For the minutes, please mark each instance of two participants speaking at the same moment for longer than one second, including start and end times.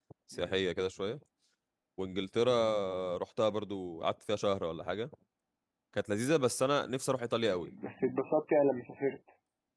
none

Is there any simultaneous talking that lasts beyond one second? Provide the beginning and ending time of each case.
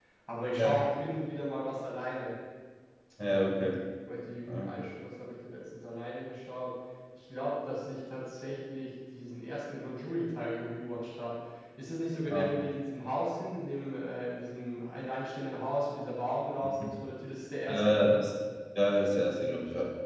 none

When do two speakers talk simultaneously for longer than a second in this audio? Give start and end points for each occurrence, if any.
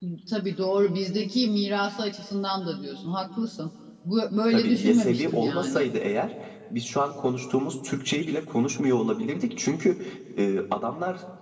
4.5-5.9

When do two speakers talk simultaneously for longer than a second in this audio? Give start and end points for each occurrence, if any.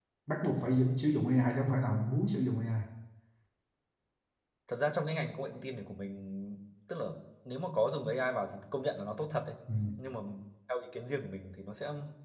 none

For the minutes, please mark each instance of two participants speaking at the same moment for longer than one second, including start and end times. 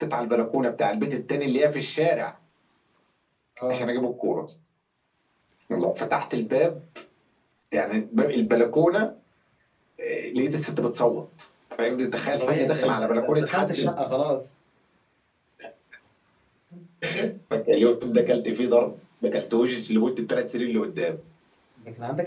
12.2-13.8

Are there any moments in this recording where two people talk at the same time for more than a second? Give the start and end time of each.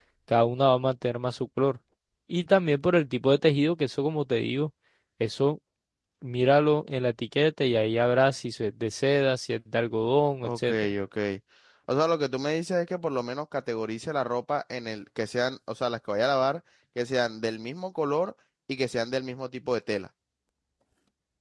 none

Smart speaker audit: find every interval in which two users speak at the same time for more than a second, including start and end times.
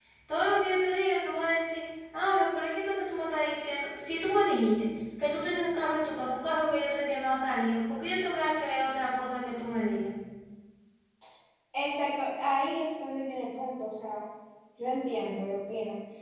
none

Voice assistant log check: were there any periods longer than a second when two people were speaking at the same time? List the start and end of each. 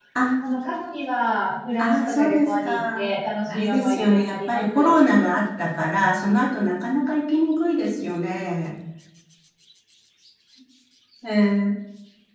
1.8-3.0, 3.5-4.9

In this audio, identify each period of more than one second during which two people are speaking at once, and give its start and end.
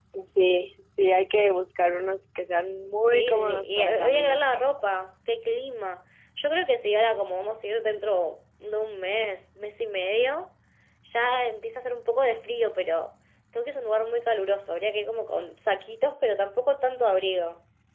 3.0-4.4

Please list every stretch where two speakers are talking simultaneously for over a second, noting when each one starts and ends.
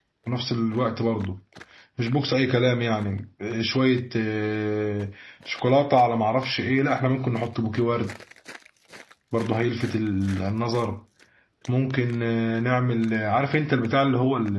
none

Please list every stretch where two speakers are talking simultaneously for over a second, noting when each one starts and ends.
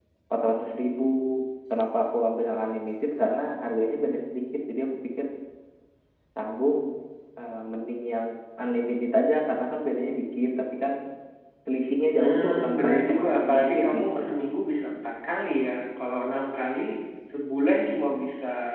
12.2-14.2

